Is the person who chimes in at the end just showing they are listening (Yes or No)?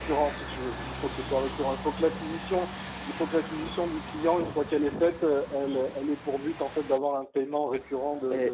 No